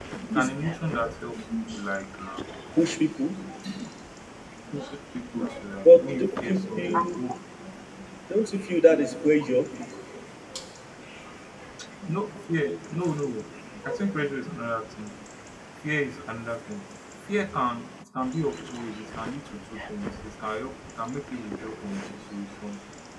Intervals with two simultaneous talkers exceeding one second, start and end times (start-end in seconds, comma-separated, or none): 5.8-7.2